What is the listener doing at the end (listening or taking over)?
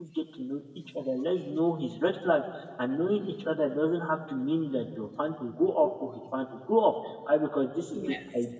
listening